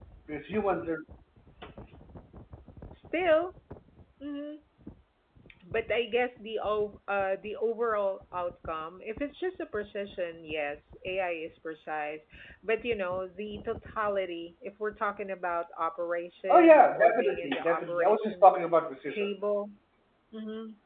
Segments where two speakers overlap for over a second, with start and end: 16.5-18.6

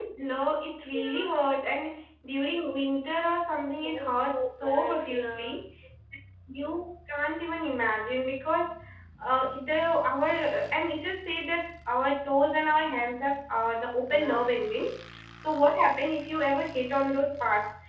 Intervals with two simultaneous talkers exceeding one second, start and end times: 3.8-5.5

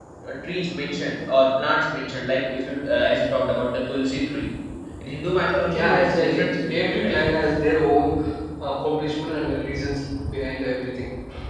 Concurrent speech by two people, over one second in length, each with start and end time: 5.7-7.2

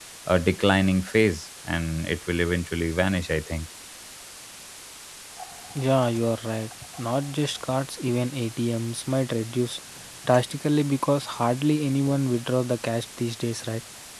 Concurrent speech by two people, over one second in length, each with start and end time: none

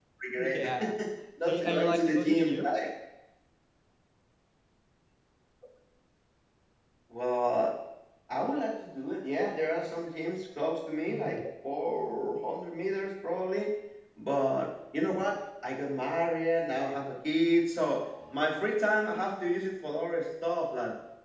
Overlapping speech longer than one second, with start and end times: 1.4-2.8

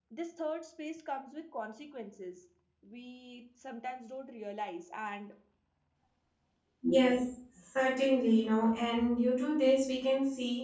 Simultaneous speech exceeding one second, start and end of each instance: none

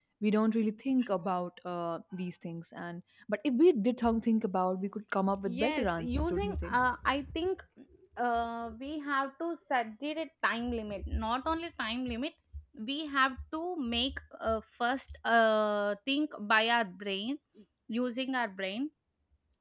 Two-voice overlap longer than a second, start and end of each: 5.5-6.8

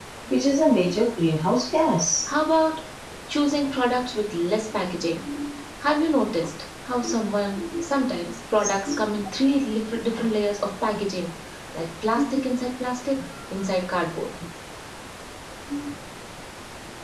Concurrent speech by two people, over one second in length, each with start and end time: none

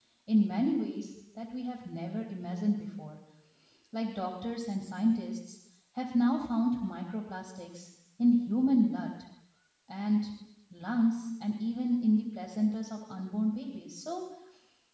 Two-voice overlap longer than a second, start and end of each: none

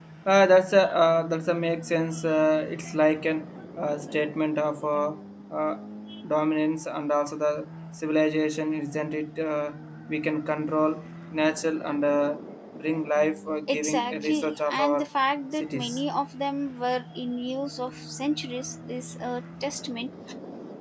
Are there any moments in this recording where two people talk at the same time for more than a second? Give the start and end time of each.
13.7-15.1

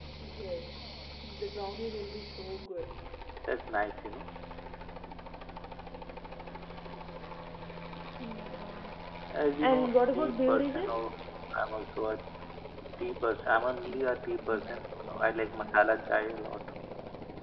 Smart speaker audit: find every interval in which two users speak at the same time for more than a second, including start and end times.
9.6-11.1

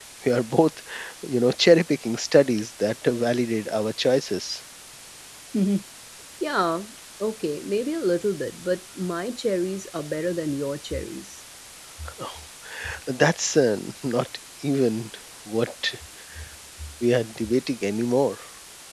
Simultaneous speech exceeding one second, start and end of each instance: none

